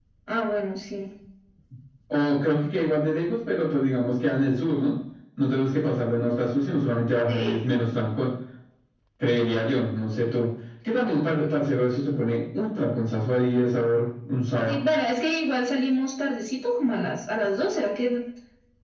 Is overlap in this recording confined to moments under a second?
Yes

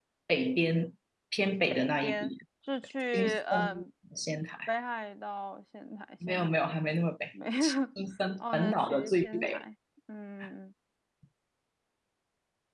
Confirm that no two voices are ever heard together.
No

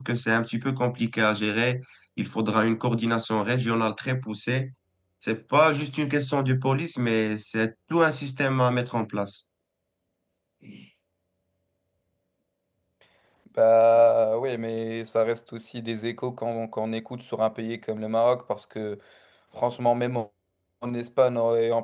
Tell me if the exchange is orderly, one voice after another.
Yes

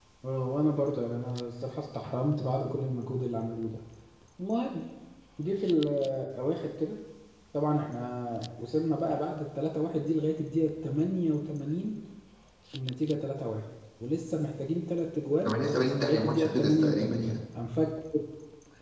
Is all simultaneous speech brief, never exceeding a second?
No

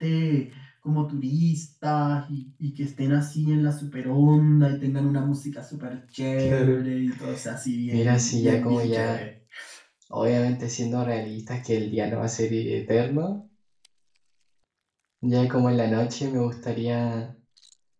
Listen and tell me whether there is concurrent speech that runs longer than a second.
Yes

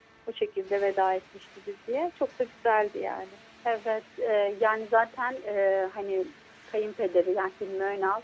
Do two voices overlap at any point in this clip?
No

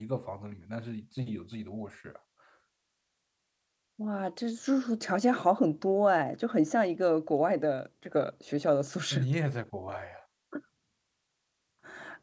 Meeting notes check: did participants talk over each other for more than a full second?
No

